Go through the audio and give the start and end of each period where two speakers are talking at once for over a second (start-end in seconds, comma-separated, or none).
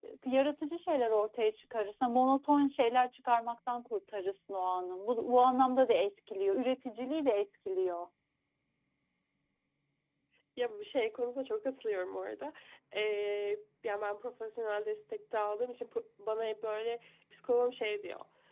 none